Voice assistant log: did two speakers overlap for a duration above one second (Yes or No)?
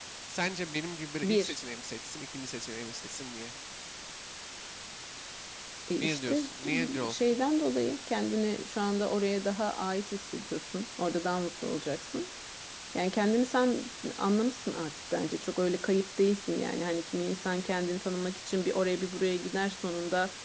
Yes